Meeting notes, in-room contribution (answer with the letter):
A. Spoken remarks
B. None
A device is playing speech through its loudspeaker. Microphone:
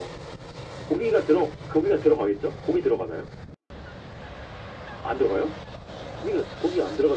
B